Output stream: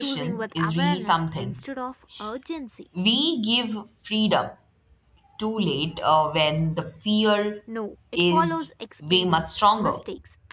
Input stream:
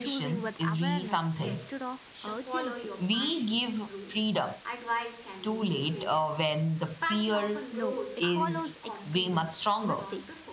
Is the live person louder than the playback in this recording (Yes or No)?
No